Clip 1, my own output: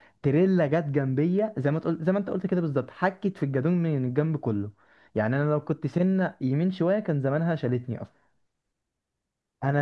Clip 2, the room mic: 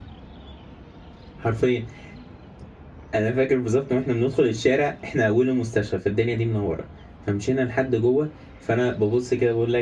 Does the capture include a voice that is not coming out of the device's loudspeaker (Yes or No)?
Yes